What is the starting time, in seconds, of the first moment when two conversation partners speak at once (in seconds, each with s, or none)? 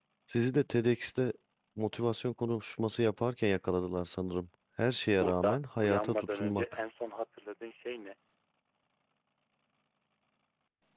5.2 s